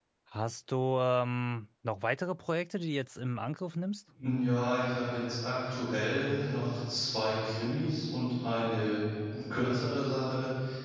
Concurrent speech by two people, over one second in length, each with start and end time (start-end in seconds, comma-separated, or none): none